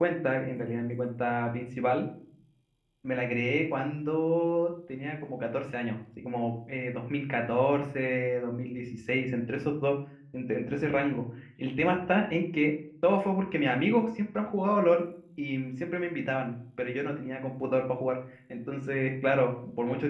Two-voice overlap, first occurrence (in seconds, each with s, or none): none